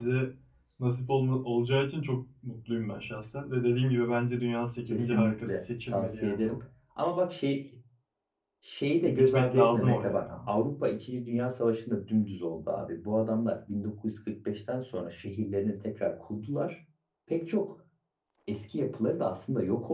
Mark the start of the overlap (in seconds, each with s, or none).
4.9 s